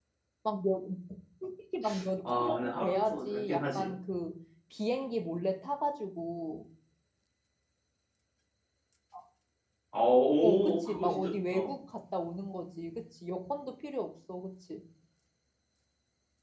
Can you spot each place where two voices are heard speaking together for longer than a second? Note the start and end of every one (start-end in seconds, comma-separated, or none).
2.4-3.9, 10.4-11.7